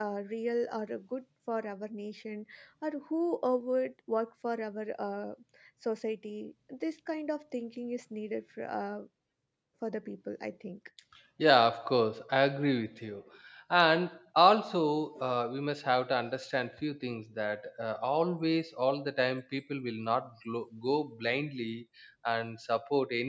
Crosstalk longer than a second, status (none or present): none